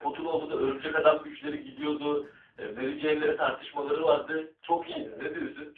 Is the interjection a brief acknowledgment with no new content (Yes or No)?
No